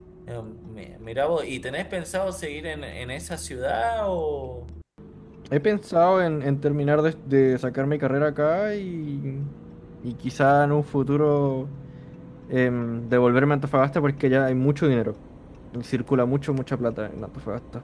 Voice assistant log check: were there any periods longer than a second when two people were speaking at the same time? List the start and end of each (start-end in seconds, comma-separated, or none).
none